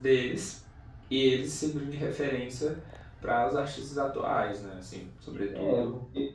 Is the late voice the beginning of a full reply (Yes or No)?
Yes